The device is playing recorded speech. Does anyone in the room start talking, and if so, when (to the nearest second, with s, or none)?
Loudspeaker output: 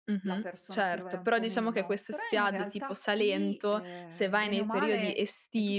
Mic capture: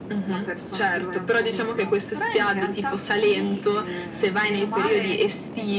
none